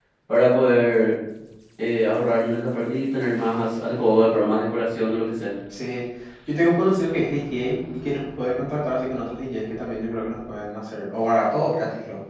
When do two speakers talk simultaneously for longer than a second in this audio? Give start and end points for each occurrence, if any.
none

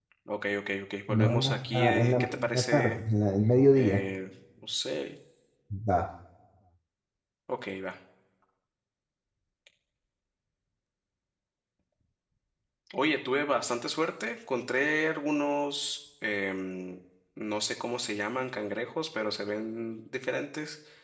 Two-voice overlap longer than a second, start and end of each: 1.1-3.0

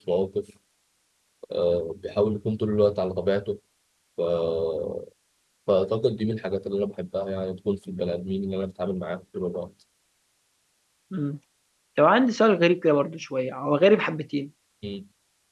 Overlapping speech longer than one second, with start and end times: none

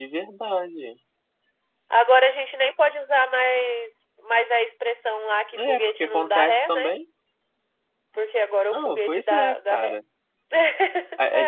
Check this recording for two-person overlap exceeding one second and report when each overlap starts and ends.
5.6-6.9, 8.7-10.0

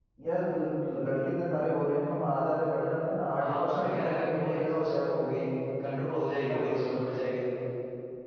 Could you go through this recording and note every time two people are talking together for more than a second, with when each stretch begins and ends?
3.4-5.2

